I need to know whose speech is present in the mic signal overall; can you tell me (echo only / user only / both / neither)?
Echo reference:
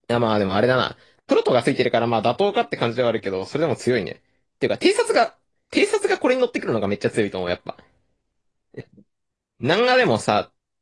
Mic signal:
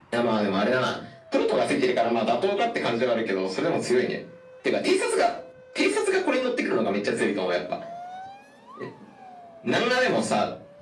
echo only